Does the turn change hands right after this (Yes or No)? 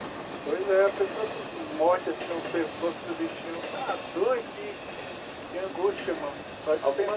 Yes